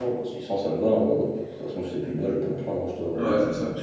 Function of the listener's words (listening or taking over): taking over